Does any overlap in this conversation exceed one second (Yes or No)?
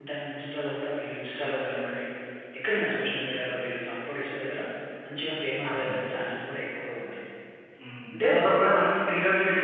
No